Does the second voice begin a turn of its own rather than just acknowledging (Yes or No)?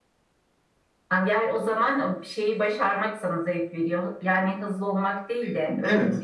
Yes